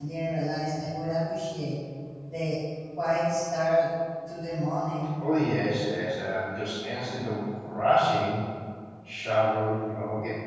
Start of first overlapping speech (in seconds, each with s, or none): none